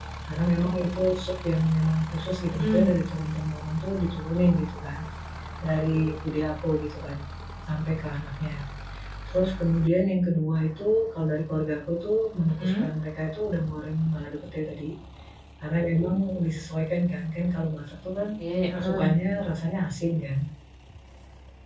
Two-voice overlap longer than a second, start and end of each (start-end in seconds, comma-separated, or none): none